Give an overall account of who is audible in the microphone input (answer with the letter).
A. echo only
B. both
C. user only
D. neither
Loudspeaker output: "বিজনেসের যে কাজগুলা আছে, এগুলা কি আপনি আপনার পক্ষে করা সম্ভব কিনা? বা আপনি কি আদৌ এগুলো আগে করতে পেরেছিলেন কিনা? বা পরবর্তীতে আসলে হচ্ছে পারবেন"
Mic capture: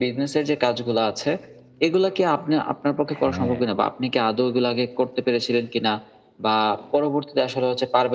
B